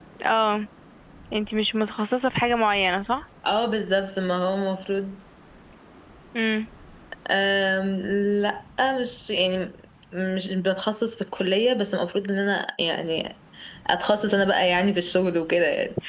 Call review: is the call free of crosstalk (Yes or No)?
Yes